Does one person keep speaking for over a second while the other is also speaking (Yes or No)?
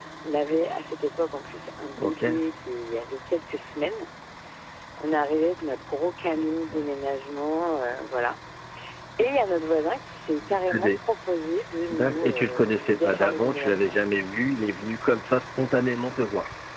Yes